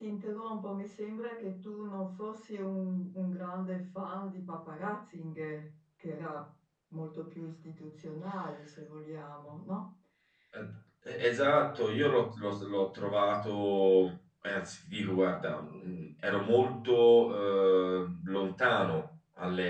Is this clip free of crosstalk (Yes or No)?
Yes